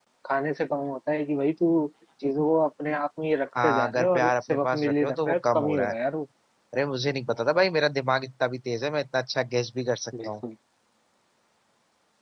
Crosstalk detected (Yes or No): Yes